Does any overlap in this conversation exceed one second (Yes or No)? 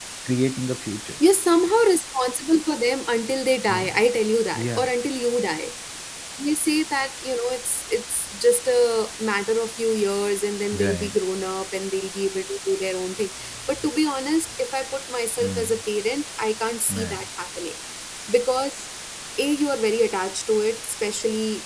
No